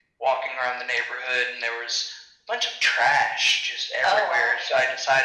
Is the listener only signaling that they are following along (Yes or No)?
Yes